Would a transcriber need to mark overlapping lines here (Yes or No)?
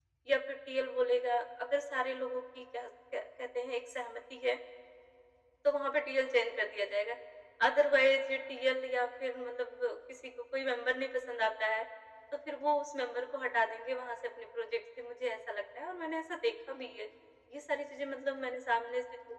No